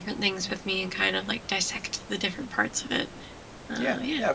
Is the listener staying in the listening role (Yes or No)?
No